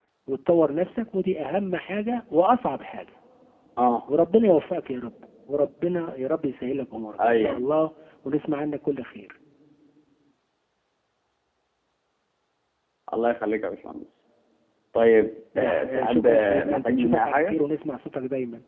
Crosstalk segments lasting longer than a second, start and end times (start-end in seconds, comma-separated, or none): 15.6-17.6